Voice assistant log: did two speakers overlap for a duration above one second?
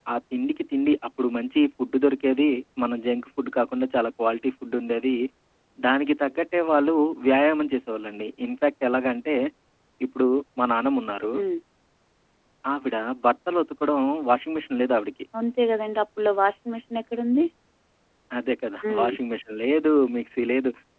No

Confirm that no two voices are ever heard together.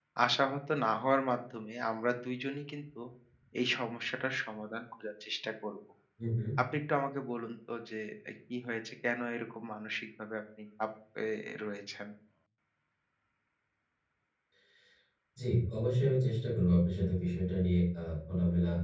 Yes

